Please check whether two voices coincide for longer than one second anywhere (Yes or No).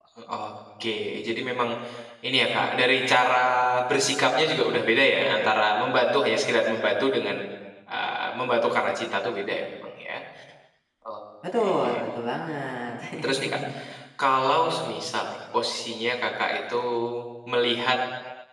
No